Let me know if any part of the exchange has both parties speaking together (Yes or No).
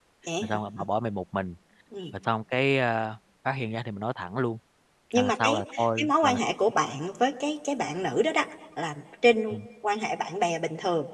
Yes